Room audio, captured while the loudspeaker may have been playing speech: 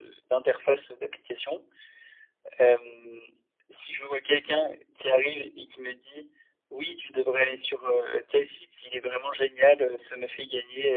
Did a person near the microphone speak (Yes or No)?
No